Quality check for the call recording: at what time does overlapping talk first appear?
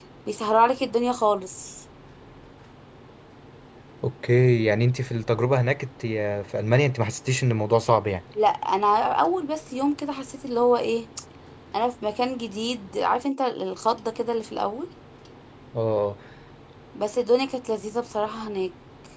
none

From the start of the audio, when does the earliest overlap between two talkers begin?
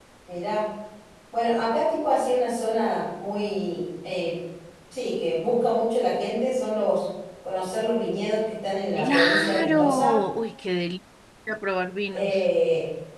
9.0 s

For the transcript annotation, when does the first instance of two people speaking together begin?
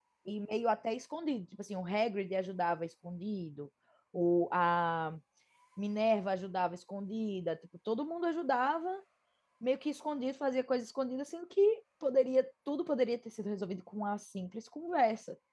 none

